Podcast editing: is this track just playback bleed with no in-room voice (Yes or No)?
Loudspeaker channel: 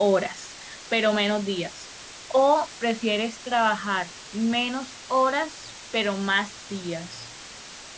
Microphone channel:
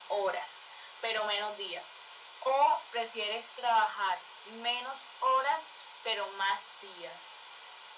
Yes